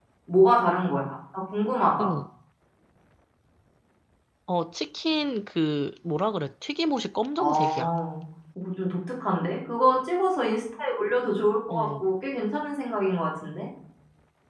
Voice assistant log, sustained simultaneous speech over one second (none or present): none